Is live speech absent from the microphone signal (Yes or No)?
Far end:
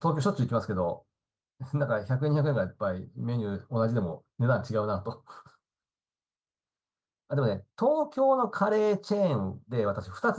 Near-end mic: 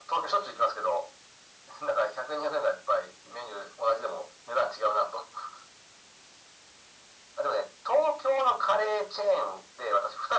Yes